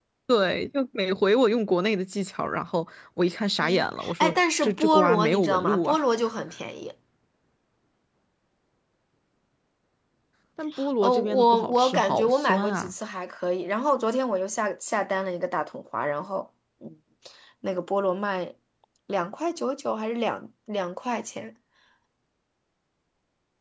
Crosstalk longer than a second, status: present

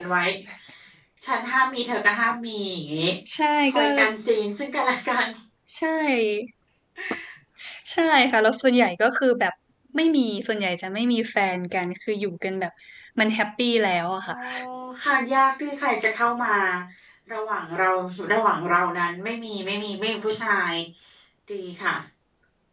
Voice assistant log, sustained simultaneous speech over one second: none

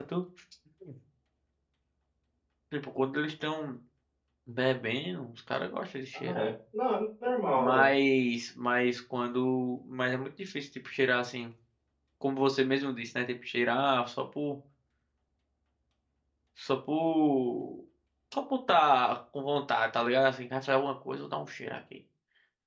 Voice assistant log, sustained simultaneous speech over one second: none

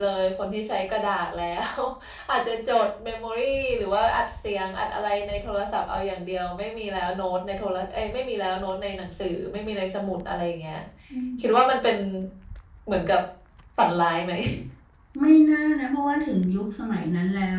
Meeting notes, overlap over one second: none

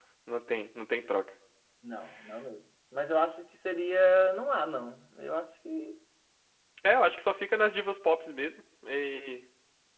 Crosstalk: none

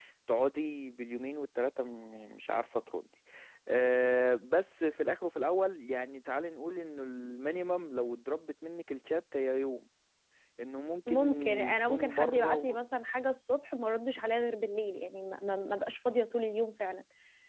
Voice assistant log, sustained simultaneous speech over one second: present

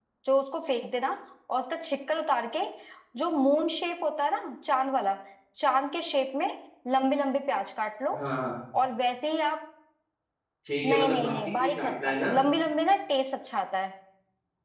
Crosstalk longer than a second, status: present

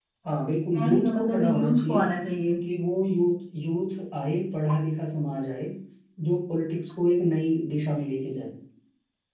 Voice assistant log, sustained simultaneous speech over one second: present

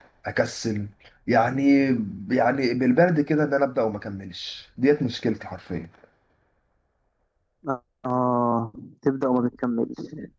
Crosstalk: none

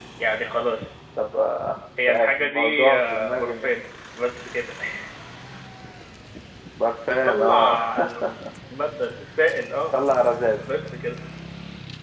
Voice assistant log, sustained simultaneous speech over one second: present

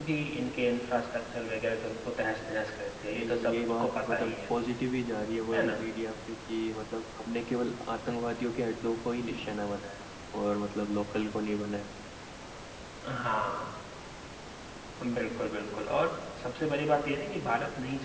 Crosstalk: present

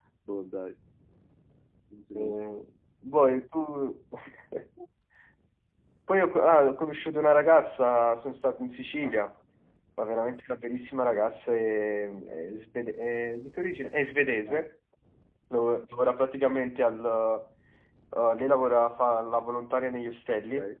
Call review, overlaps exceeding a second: none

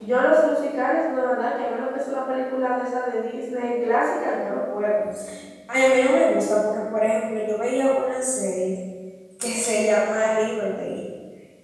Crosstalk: none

